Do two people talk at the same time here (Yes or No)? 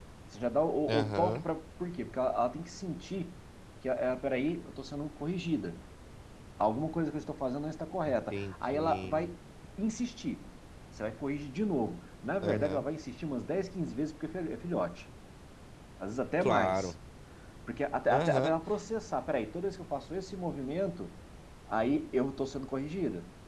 Yes